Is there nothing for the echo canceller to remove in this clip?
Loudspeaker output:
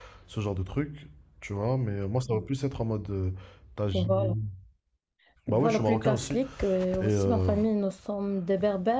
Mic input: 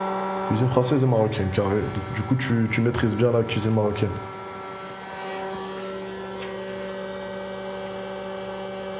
Yes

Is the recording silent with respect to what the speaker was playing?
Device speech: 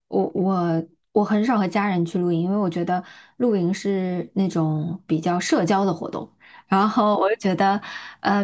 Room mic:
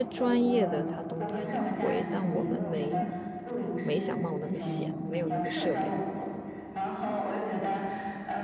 No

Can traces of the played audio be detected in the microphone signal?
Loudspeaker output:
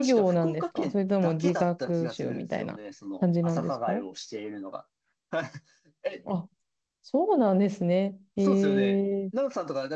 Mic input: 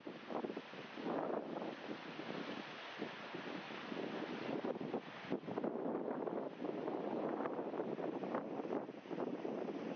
No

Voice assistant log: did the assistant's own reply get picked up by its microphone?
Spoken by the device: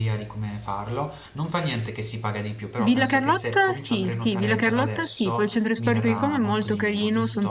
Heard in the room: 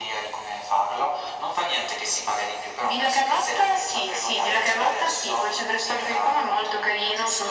Yes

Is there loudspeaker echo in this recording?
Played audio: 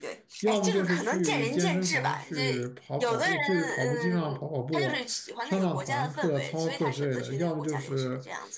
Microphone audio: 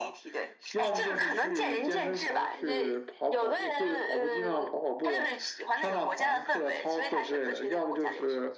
Yes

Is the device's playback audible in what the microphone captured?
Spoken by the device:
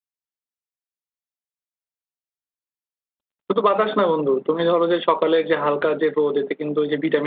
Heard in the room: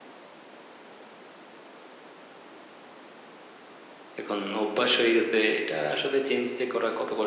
No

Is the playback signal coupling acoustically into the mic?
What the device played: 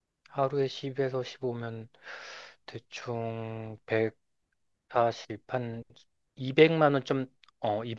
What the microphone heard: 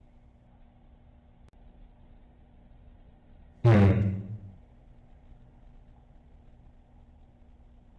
No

